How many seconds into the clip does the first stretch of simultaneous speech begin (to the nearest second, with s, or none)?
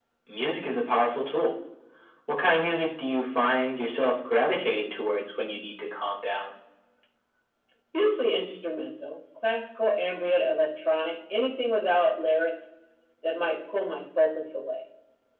none